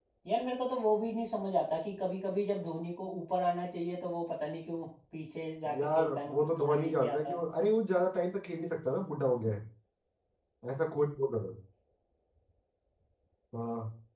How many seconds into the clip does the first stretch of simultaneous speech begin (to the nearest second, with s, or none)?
6 s